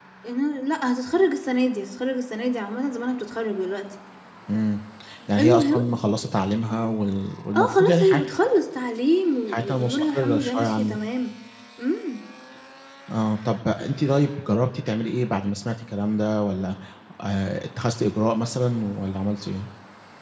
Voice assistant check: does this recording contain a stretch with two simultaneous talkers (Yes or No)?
Yes